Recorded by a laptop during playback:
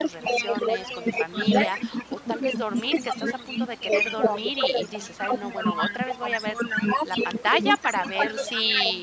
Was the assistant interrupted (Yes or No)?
Yes